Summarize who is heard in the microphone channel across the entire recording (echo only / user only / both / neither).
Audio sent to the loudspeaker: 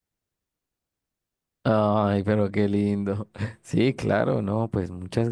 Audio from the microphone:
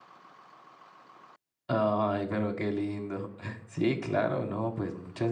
echo only